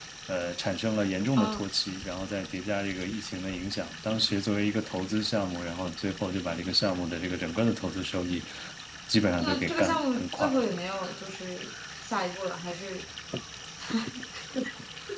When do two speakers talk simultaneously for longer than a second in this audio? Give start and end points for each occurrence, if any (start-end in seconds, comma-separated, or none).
9.4-10.6